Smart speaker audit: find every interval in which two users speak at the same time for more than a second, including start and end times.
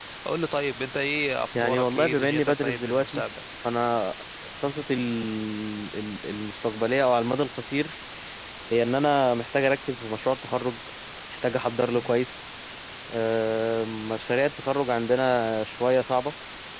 1.6-3.2

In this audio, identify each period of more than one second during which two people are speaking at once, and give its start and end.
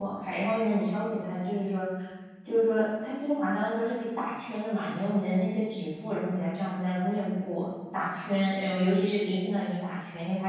none

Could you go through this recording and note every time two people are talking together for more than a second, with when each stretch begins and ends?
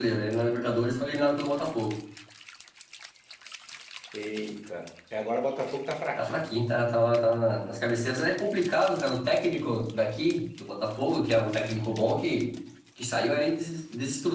none

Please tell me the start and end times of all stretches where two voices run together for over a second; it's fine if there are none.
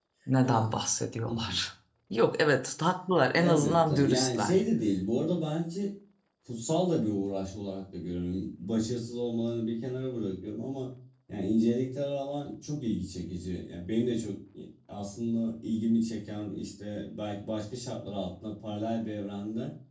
3.4-4.6

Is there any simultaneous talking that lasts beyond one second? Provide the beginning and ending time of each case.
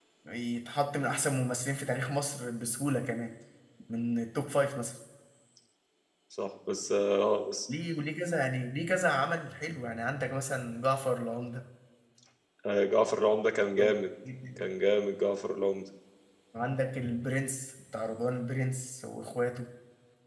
none

